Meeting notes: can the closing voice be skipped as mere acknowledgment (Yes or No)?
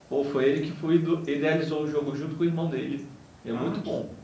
No